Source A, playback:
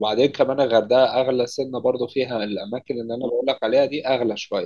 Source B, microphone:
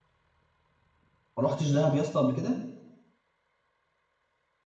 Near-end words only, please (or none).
ما رحتش دهب يا اسطى قبل كده